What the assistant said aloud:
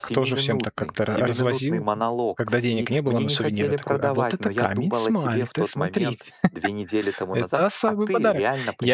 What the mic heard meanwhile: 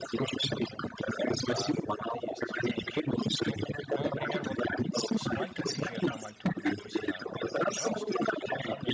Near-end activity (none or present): present